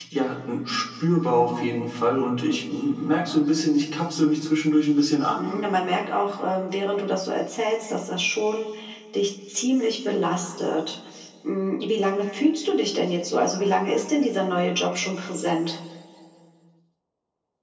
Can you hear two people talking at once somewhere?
No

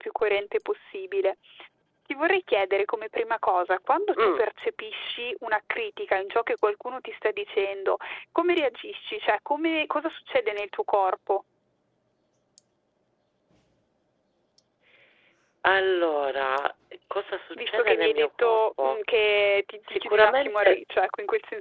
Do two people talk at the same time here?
Yes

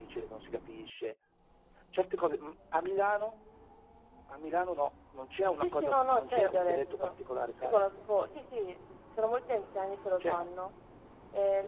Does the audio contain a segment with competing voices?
Yes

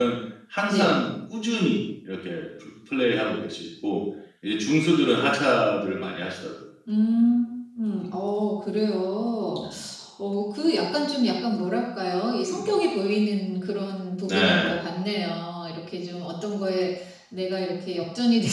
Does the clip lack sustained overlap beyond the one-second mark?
Yes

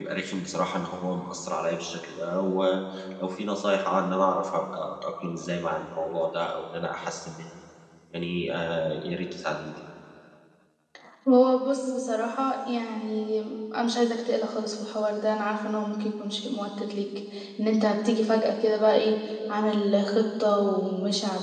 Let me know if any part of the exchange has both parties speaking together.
No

